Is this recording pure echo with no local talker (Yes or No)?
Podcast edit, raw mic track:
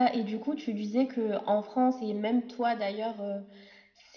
Yes